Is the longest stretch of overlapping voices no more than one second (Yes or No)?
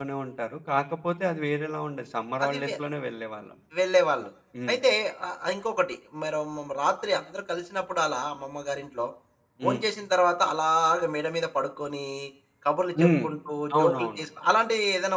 Yes